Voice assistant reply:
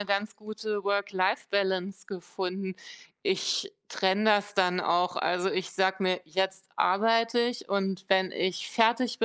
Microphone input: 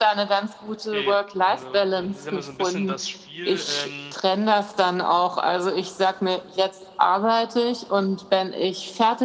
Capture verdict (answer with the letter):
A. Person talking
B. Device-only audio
A